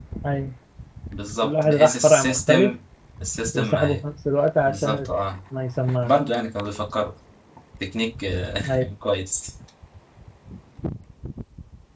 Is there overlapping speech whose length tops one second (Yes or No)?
Yes